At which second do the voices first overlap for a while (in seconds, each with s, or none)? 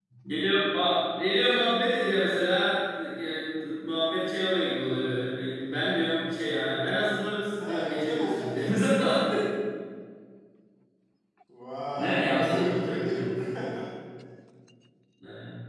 7.6 s